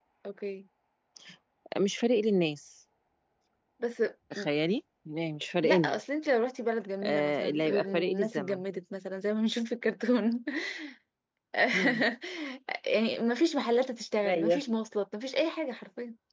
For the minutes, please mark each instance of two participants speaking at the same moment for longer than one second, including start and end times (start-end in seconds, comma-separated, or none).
7.0-8.6